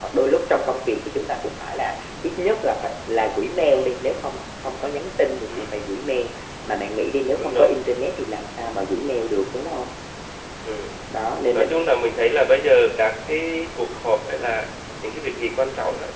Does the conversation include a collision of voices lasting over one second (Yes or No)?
No